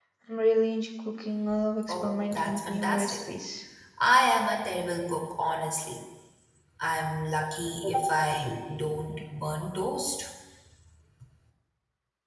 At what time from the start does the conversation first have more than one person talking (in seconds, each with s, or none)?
1.8 s